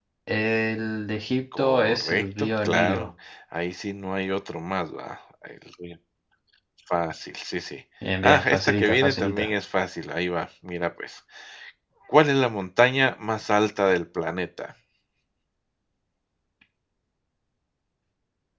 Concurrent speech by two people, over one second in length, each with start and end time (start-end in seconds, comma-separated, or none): 1.6-3.1, 8.2-9.5